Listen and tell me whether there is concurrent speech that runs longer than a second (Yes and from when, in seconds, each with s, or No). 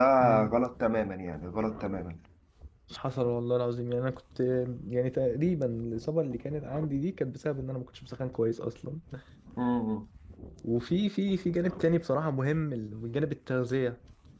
No